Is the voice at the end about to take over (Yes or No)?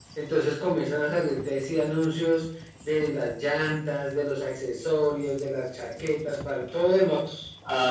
Yes